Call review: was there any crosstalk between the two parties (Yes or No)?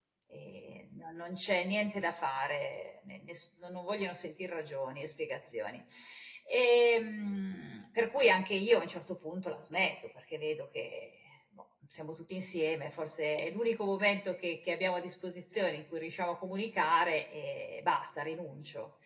No